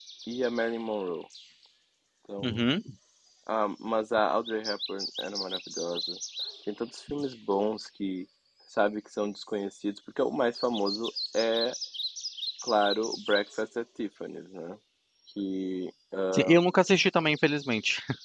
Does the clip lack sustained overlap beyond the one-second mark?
Yes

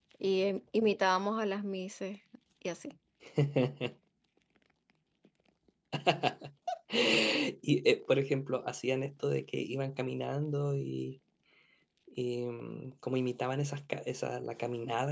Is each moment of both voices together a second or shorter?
Yes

